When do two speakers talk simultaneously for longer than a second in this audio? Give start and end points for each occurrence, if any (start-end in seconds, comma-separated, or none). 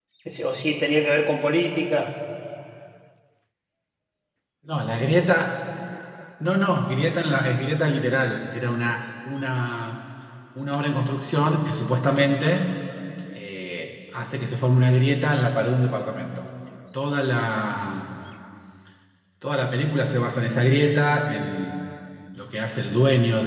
none